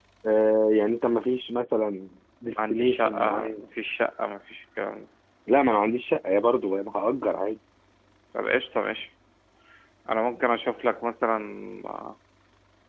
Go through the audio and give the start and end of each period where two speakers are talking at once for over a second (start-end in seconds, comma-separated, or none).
2.4-3.6